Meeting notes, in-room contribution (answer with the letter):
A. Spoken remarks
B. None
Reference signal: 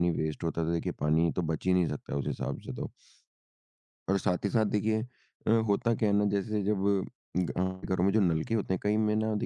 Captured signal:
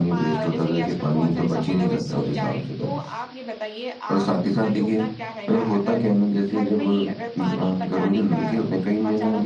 A